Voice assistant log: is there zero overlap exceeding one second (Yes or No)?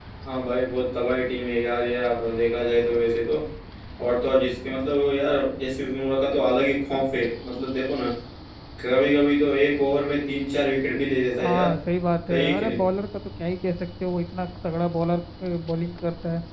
Yes